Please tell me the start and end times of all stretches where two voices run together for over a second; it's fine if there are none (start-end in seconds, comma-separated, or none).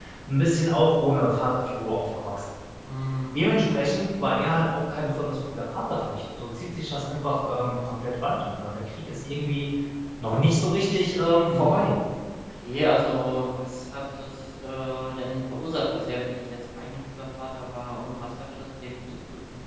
none